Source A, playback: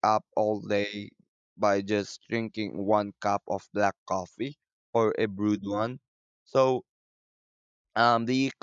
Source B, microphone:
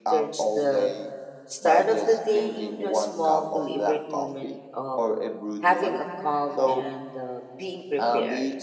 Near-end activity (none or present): present